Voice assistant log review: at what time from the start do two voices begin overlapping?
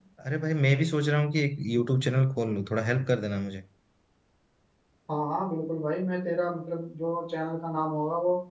none

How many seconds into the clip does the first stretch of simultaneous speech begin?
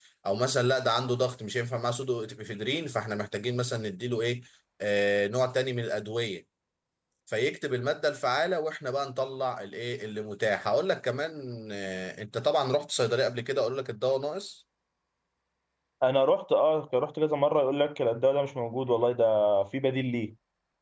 none

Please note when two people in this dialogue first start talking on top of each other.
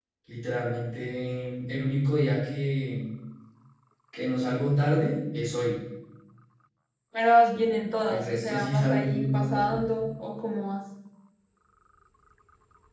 8.1 s

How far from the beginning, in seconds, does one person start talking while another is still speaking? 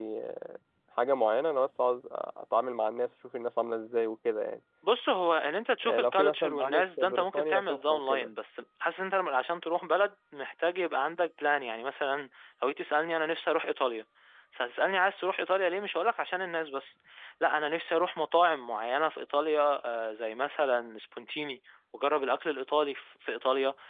5.8 s

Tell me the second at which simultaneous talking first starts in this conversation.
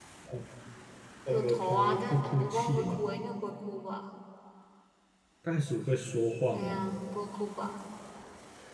1.3 s

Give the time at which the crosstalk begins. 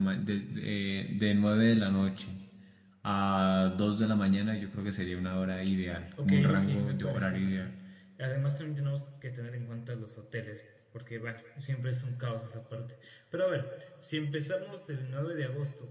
6.2 s

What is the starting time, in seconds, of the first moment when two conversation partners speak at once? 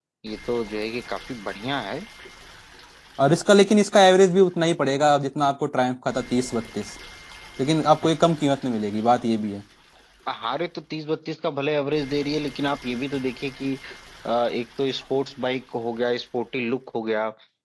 none

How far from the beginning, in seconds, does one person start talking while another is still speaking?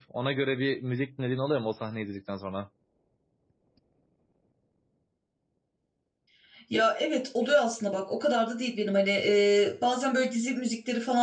none

